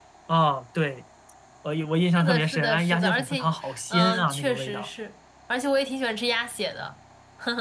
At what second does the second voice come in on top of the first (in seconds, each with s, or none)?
2.0 s